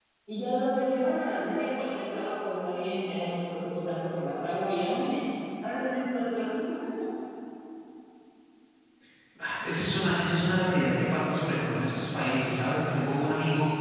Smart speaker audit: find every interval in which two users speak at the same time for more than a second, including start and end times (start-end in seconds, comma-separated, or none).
none